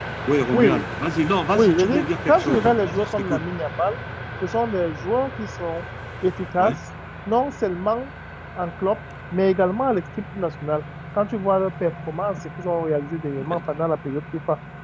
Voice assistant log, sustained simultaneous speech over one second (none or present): present